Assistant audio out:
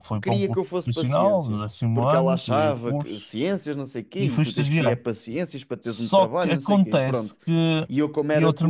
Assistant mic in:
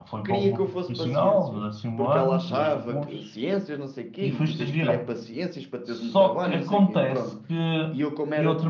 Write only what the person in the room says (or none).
none